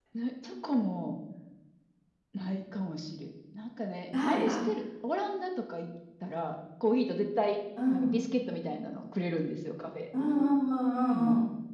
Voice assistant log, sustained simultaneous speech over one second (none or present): none